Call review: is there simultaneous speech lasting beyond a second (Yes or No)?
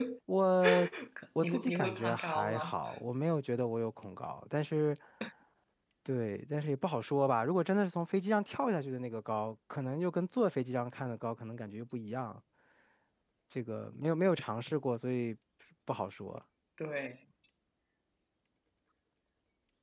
Yes